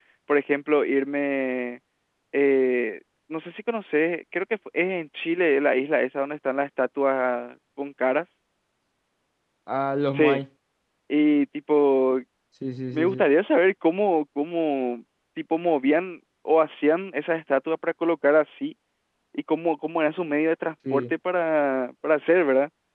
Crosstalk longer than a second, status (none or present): none